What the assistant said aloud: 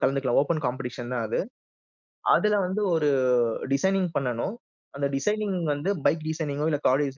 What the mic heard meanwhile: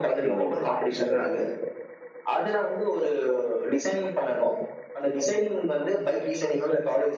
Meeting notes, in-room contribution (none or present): present